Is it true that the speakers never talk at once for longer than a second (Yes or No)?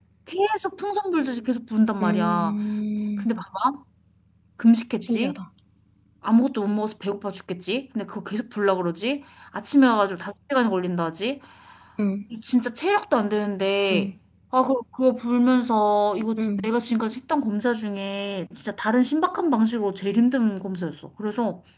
Yes